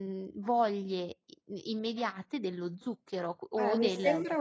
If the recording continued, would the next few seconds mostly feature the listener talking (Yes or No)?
Yes